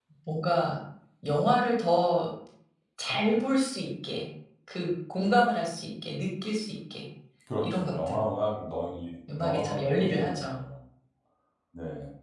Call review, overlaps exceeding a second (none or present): present